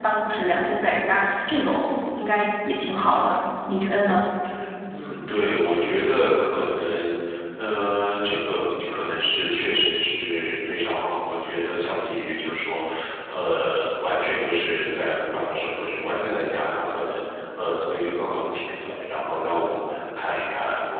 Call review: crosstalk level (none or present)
none